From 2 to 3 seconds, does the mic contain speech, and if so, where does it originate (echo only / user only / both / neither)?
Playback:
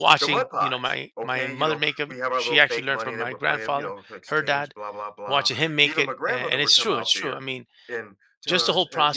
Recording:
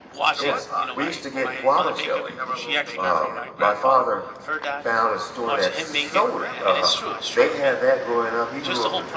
both